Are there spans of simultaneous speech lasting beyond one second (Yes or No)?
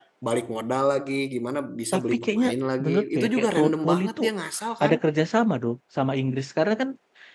Yes